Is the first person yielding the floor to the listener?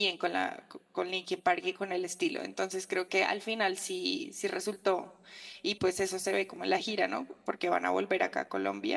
No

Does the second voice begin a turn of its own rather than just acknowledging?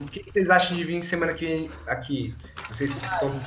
Yes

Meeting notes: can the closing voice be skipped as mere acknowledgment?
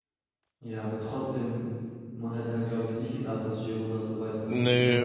No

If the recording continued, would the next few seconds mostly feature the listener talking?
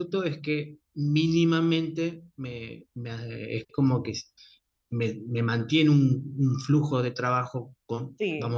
Yes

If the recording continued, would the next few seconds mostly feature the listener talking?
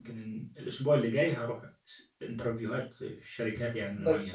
Yes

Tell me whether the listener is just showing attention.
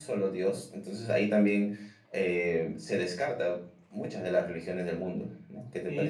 No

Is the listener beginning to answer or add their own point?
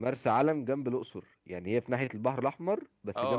Yes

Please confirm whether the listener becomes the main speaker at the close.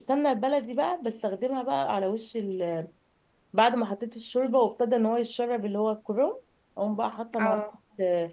No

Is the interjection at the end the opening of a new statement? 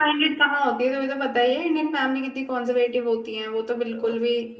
Yes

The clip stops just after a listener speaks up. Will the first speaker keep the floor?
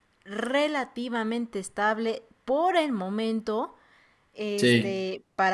Yes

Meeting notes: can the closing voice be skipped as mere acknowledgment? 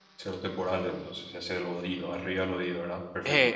No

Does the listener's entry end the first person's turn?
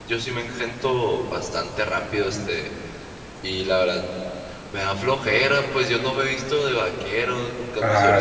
No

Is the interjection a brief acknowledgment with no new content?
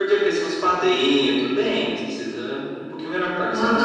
No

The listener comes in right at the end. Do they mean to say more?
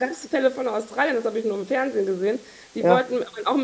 No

